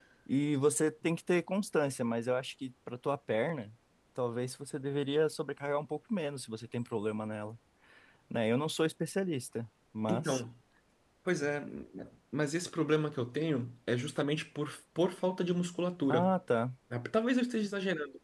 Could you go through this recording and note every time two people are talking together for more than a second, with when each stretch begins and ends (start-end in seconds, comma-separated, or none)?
none